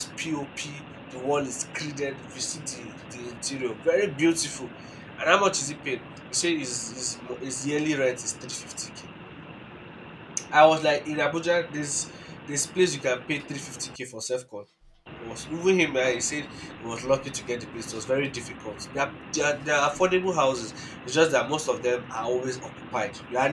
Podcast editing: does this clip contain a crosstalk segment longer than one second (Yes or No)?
No